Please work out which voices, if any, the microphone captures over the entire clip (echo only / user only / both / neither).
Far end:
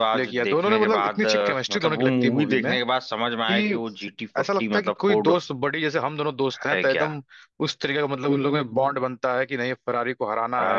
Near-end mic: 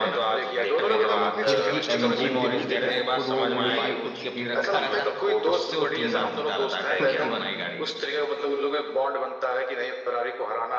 both